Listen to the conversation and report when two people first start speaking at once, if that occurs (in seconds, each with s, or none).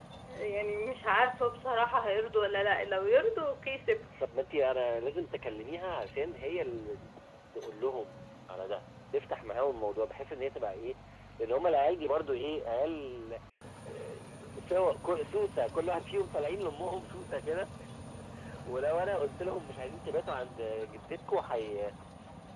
none